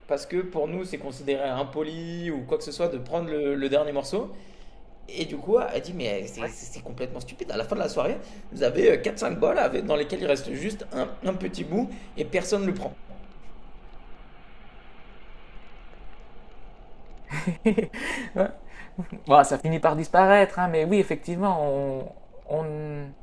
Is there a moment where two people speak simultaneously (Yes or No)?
No